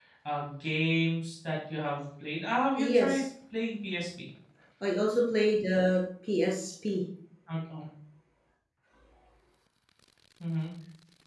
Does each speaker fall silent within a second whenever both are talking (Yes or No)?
Yes